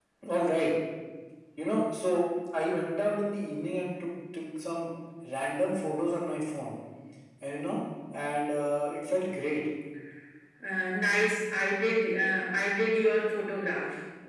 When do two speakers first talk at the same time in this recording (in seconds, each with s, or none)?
none